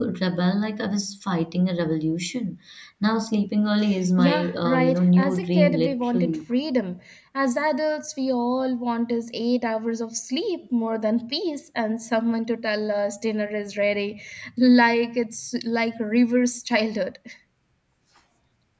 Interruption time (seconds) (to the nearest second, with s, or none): 4 s